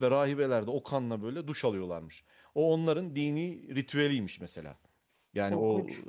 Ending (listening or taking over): listening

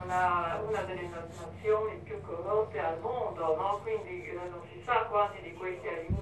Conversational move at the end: listening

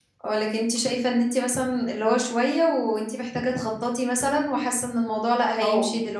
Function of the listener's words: taking over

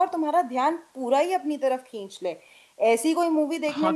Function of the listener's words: taking over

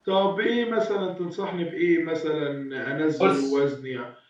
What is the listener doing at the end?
listening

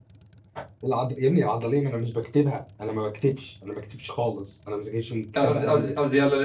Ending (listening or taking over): taking over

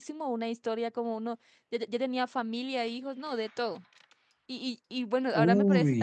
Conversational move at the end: listening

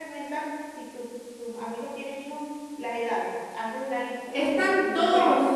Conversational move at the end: taking over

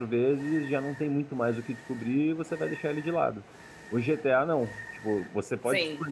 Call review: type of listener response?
listening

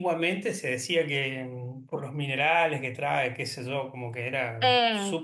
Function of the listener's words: taking over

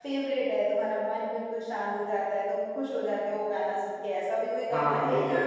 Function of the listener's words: taking over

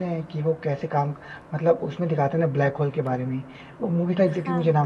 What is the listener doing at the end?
listening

